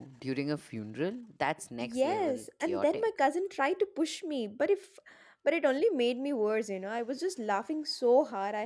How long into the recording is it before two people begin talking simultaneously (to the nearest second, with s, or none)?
2 s